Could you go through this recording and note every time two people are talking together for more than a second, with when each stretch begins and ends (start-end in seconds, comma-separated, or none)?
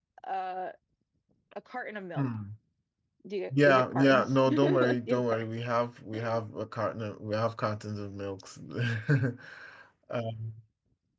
3.6-5.4